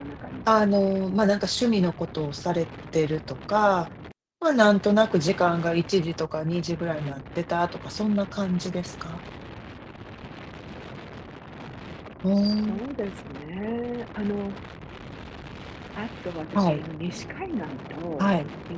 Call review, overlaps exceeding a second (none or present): none